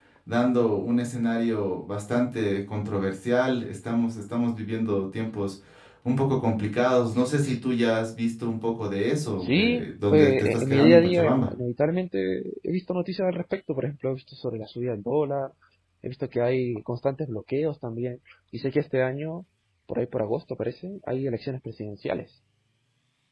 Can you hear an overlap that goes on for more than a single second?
Yes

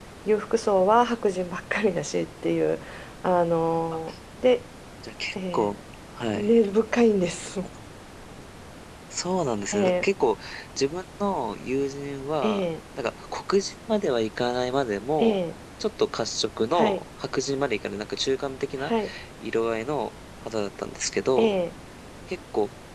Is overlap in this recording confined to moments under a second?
Yes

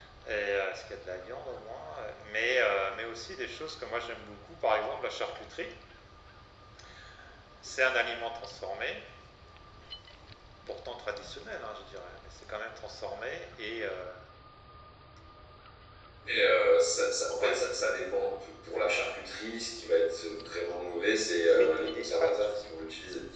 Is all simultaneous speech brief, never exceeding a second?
No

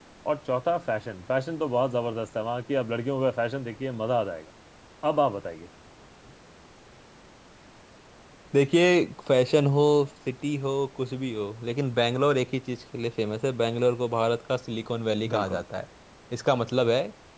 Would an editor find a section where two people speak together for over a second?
No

